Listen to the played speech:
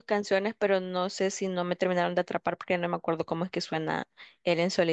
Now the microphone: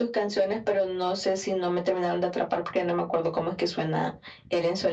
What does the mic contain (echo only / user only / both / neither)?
echo only